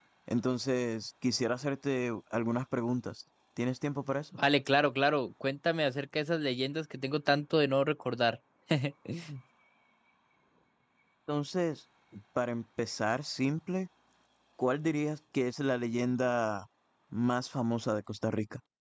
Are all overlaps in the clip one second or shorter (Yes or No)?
Yes